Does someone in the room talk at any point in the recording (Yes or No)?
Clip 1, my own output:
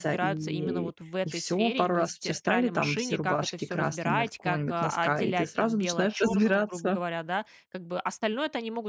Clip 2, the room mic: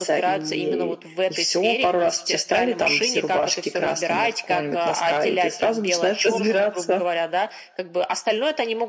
No